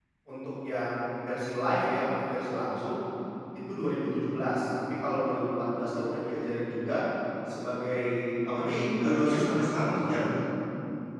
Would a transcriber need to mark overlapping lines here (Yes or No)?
Yes